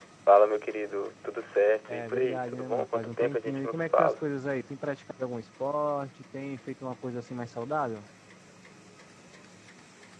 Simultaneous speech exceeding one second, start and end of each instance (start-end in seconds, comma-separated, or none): 1.9-4.2